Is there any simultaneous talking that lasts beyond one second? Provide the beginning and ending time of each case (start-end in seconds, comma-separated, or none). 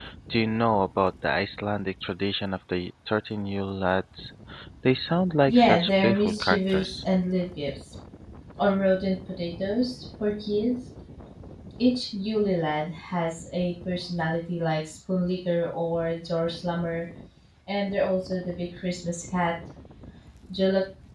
5.5-7.0